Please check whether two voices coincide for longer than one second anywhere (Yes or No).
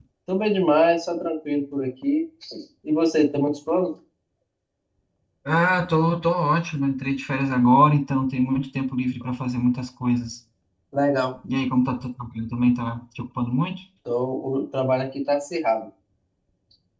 No